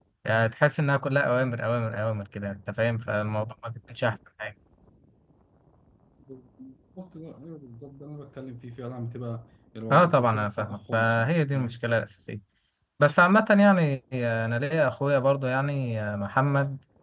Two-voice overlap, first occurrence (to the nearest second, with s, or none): 10 s